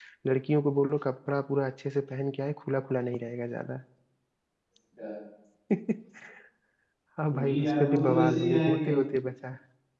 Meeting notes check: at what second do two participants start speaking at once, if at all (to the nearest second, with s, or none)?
7 s